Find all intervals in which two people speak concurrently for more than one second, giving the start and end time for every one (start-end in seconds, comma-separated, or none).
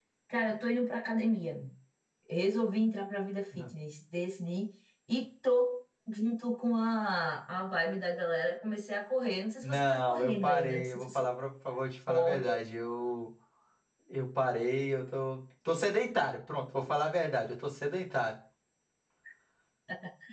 9.6-11.3